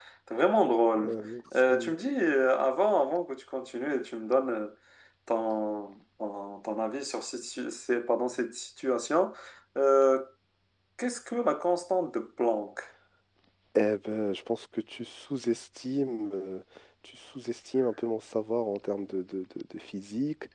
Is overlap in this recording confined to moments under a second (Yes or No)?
Yes